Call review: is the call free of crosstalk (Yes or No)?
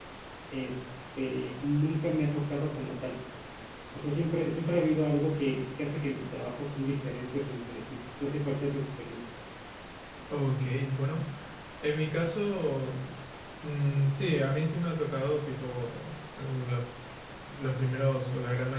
Yes